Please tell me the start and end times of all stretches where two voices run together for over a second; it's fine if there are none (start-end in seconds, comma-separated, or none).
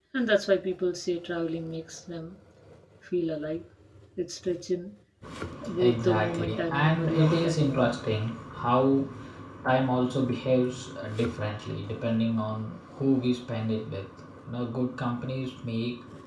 5.8-8.0